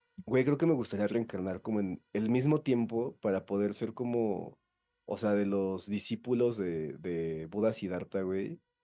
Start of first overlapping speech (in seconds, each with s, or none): none